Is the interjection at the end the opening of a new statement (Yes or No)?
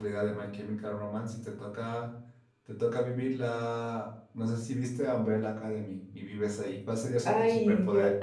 Yes